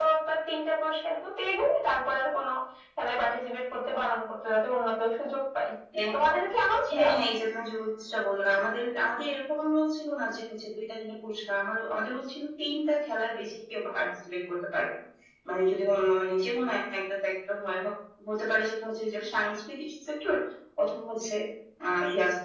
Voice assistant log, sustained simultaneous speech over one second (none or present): none